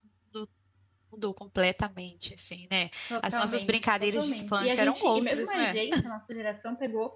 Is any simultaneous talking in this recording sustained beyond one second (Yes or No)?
Yes